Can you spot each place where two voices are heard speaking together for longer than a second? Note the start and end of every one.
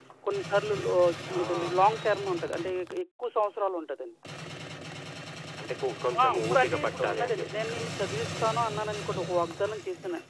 6.2-7.8

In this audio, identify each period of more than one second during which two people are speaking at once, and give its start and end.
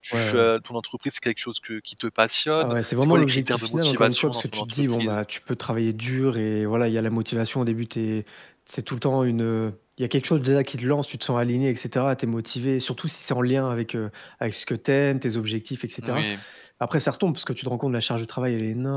2.6-5.2

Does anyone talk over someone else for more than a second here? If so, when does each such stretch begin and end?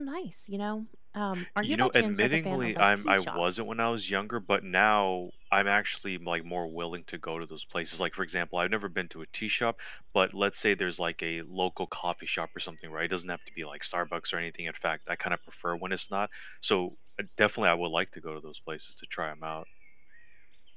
1.6-3.7

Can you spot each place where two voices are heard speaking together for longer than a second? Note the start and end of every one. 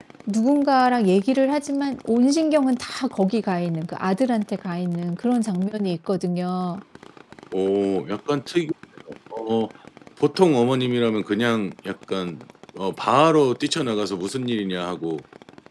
none

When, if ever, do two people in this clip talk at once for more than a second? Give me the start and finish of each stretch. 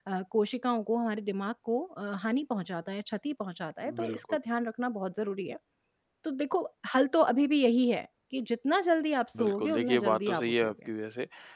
9.4-10.7

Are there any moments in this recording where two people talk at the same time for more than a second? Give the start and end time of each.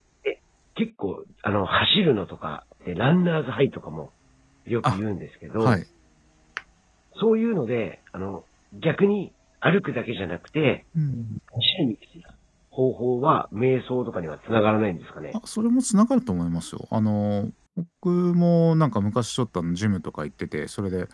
none

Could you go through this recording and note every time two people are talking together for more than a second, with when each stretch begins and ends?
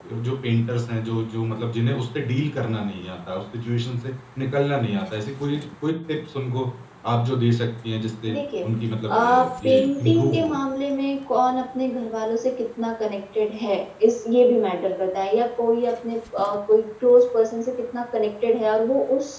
9.1-10.6

